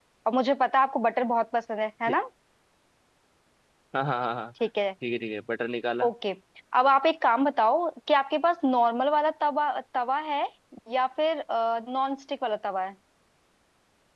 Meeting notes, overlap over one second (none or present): none